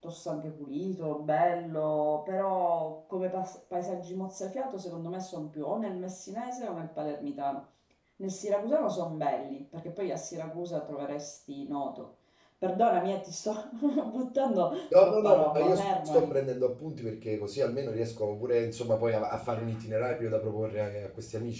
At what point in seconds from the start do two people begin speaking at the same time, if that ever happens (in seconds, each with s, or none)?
14.9 s